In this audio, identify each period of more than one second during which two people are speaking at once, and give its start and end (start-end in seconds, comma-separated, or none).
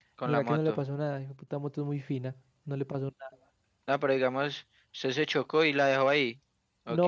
none